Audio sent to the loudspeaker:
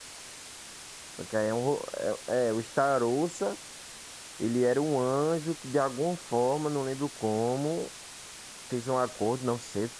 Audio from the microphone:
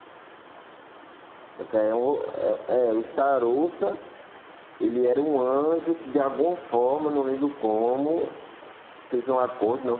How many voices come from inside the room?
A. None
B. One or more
A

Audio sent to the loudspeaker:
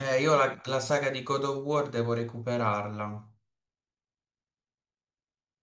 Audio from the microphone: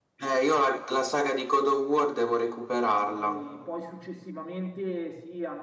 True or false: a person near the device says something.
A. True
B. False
A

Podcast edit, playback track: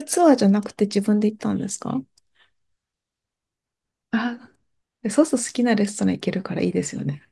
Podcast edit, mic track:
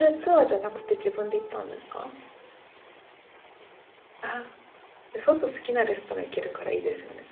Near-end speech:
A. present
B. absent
B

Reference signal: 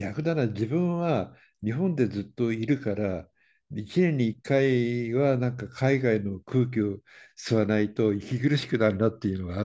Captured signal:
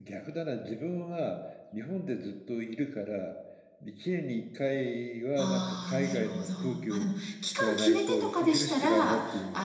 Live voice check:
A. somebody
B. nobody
A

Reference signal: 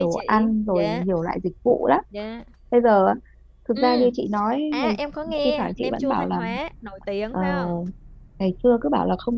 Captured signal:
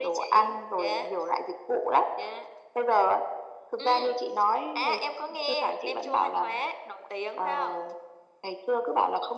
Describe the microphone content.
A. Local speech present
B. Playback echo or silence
B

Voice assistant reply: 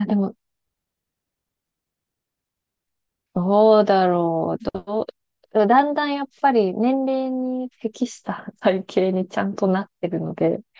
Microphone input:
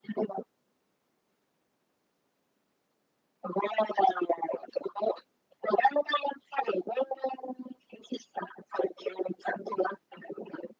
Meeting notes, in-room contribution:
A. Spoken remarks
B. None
B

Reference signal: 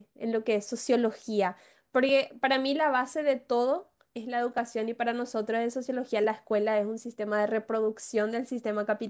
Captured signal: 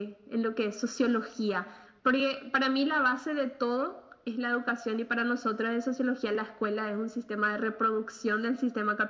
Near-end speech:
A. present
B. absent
B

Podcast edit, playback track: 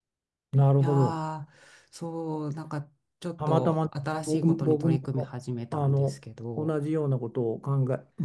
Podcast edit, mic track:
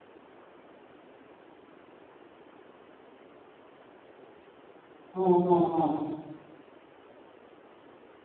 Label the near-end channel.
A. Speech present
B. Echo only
A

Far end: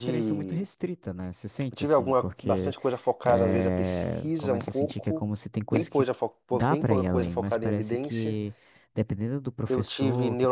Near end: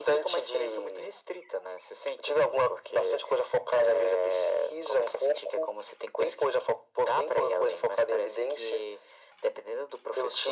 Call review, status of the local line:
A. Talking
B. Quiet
B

